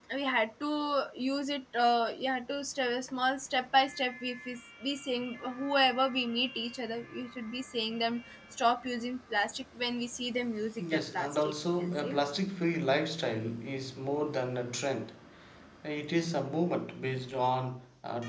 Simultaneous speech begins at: 11 s

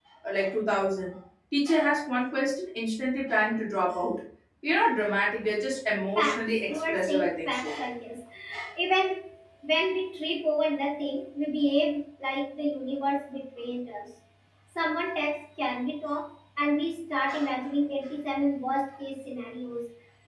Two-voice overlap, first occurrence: 6 s

